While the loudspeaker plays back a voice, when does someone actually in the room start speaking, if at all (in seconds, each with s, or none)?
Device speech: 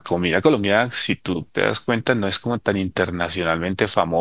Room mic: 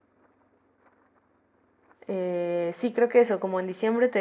2.1 s